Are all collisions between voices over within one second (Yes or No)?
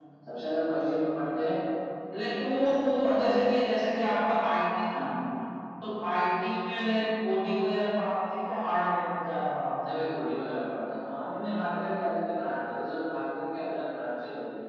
Yes